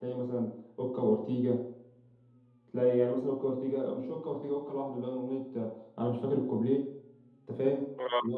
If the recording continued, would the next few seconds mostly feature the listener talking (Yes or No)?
Yes